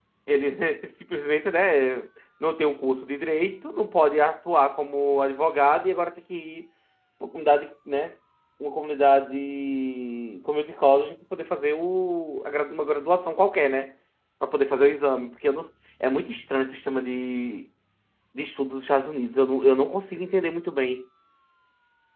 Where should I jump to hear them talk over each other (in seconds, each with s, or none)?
none